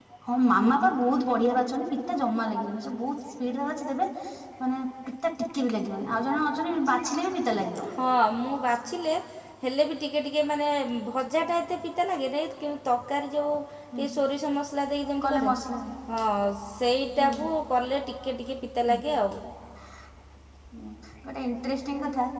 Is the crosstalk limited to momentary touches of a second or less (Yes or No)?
Yes